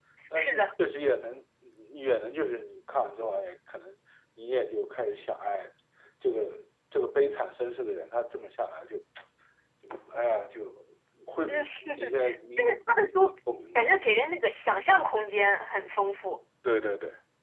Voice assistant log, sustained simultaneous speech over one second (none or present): present